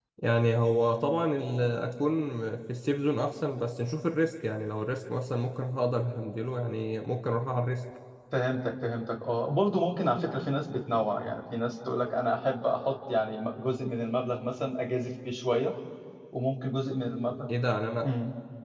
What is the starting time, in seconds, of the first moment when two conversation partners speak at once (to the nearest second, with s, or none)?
none